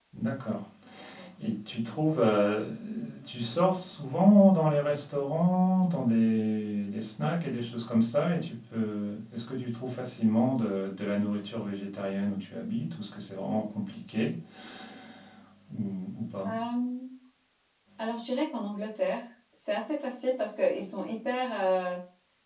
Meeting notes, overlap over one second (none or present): none